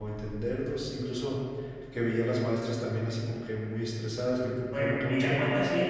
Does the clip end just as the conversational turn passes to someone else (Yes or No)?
Yes